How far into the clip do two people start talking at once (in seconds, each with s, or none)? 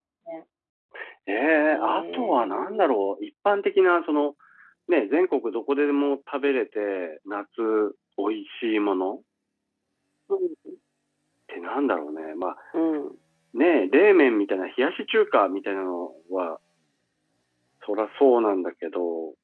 1.6 s